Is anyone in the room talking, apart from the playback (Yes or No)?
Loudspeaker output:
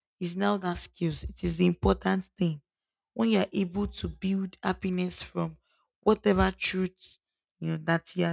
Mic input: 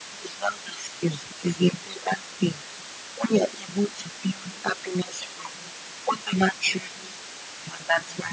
No